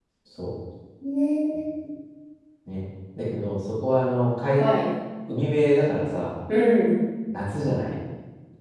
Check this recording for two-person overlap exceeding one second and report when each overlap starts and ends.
none

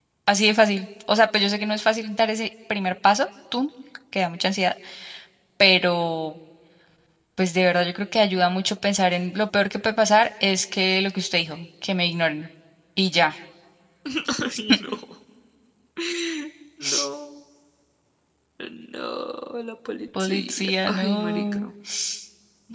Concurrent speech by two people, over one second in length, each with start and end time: 20.2-21.7

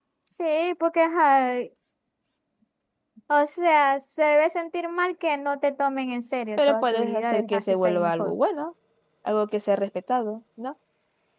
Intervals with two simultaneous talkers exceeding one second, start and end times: 6.6-8.3

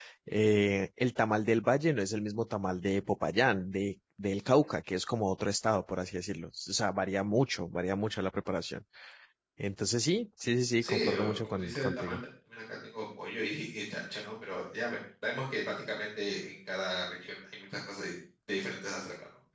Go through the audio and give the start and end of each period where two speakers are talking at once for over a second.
10.8-12.2

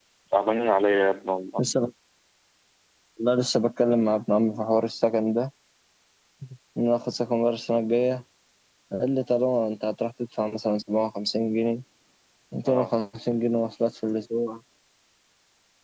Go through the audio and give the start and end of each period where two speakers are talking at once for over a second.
none

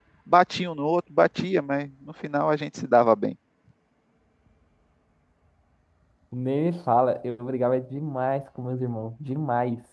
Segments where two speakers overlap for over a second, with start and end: none

